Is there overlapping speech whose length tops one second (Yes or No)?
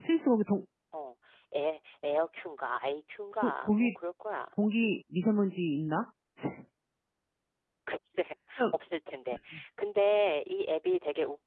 No